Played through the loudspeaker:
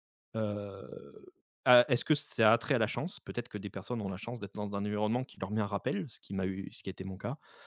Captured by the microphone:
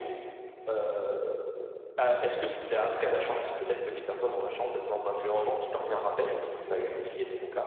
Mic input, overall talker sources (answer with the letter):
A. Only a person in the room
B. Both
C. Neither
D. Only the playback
D